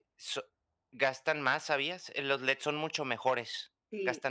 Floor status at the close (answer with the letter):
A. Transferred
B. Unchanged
A